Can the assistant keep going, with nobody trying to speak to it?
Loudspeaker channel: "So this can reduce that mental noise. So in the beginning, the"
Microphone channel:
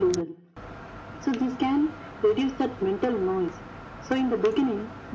Yes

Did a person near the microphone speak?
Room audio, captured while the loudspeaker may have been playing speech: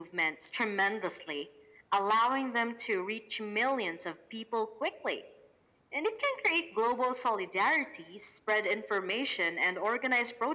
No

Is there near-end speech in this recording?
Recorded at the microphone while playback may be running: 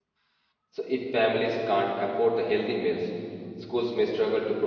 Yes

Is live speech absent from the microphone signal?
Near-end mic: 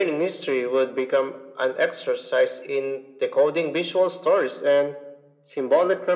Yes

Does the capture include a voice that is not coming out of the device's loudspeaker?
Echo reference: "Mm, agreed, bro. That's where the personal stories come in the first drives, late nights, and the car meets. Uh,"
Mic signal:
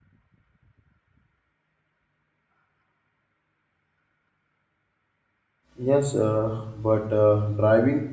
Yes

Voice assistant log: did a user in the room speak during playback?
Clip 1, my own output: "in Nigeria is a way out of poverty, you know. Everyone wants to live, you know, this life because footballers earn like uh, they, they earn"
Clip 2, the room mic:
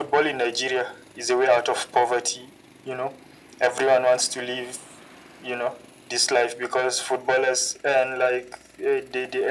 No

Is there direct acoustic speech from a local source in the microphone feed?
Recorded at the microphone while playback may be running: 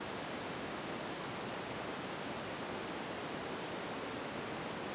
No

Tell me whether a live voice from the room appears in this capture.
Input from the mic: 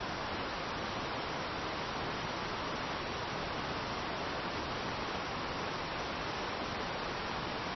No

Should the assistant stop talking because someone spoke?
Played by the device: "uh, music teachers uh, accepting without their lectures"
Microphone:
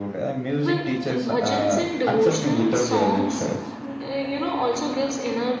Yes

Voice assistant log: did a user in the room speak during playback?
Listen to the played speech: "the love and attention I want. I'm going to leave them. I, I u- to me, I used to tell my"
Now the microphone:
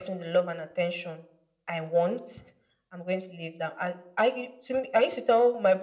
No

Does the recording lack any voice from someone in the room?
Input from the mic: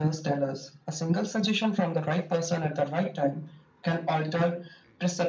Yes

